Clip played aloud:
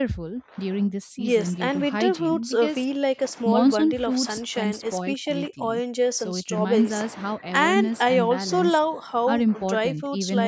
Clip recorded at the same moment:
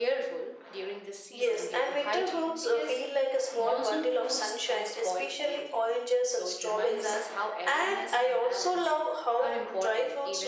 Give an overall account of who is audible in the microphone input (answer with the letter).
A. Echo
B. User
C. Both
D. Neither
A